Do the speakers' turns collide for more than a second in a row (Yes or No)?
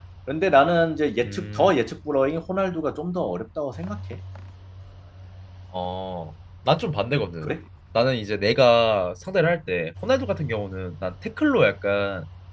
No